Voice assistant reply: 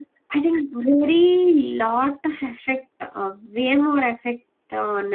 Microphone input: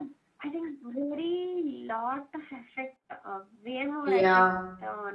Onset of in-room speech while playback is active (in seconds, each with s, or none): 4.0 s